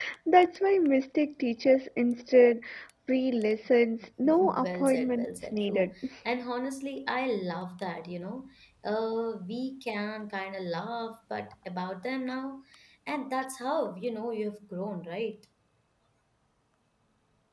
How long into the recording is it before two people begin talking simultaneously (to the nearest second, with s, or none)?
4 s